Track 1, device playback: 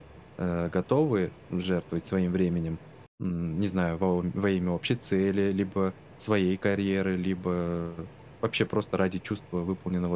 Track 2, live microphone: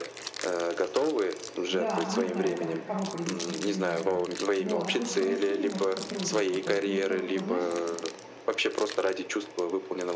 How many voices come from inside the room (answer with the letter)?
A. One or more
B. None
A